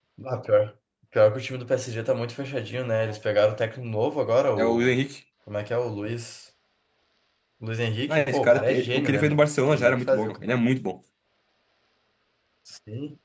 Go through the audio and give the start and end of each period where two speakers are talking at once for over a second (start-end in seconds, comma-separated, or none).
8.1-10.5